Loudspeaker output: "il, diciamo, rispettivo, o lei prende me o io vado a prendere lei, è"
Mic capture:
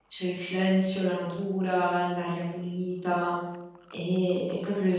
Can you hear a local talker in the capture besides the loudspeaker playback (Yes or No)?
Yes